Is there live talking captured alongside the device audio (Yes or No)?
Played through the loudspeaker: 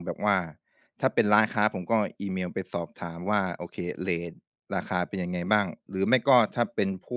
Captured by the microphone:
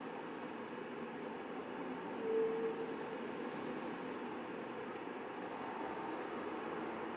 No